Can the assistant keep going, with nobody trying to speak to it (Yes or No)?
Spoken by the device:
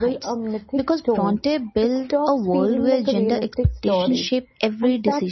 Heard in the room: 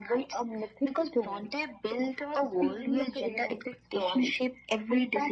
Yes